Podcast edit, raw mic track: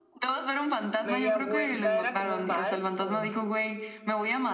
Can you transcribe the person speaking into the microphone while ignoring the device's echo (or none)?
media vuelta, ¿era como un vals o...?